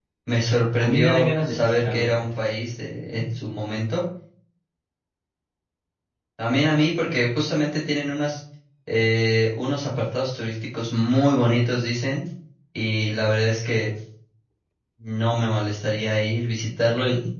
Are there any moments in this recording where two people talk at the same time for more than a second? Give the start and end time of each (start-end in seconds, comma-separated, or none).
0.8-2.2